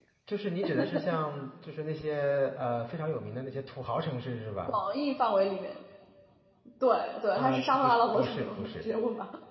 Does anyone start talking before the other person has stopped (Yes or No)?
Yes